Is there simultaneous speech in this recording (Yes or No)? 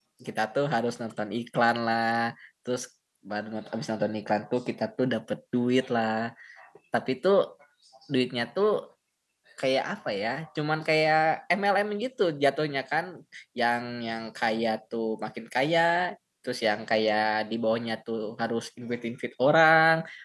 No